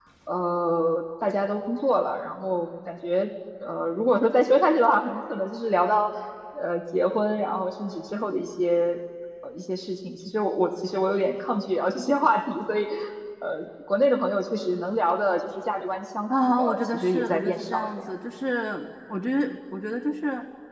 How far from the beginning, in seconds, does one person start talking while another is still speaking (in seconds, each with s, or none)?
16.3 s